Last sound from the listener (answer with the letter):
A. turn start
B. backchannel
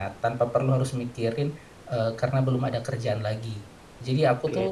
A